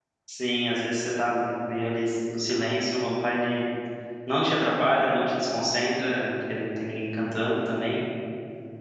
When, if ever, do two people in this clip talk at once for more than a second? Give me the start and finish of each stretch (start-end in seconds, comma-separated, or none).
none